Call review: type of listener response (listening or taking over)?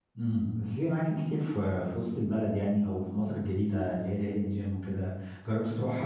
listening